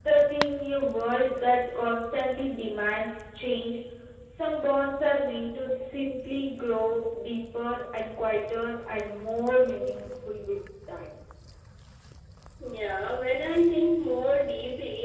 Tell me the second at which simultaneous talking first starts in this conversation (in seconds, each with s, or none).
none